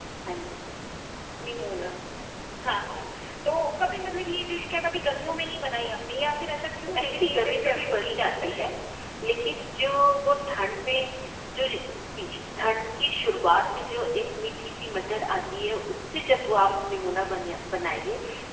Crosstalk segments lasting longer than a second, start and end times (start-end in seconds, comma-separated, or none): 7.0-8.7